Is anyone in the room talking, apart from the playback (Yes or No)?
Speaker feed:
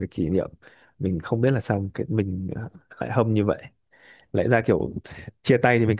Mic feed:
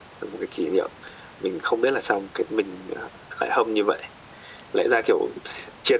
No